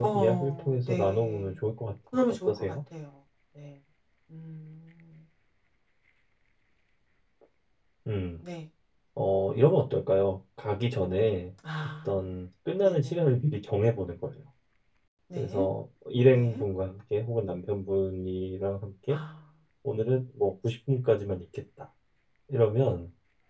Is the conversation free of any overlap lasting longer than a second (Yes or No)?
No